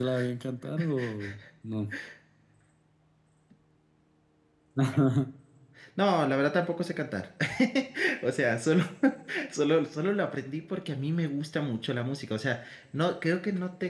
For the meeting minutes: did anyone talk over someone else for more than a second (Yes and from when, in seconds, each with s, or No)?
No